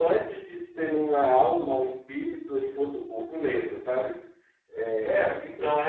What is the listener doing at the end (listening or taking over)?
taking over